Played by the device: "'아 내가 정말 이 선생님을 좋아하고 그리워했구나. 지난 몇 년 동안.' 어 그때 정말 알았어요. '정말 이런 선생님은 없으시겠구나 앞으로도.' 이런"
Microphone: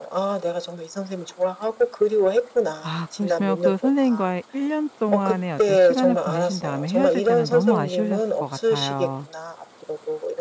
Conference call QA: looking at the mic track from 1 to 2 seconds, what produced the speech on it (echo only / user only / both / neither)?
echo only